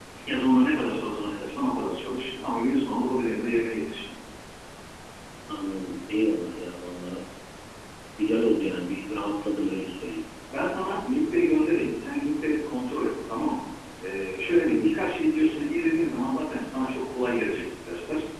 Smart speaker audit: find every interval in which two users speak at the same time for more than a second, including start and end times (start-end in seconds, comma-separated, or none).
none